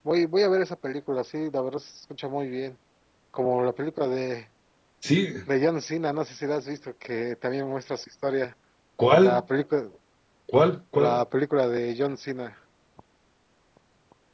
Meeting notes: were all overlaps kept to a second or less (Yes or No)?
Yes